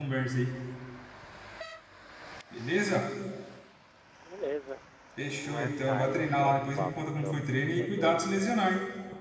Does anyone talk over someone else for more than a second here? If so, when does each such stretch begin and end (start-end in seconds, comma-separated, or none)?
5.2-7.4